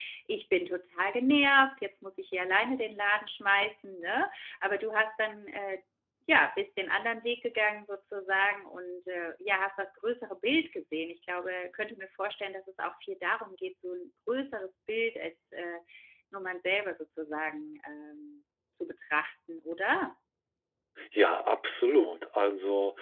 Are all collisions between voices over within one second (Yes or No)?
Yes